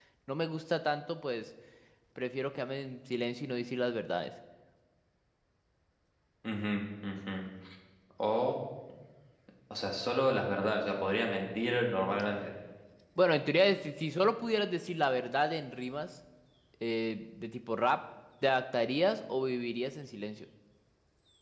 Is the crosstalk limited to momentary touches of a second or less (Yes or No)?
Yes